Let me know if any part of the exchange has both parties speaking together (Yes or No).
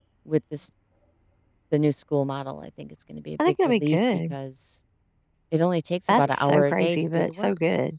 Yes